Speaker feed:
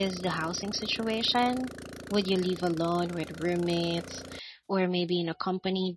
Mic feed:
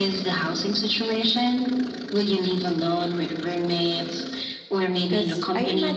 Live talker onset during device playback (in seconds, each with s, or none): 5.1 s